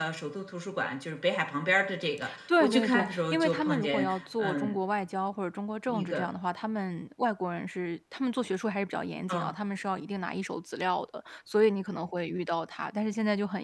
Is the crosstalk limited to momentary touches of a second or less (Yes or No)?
No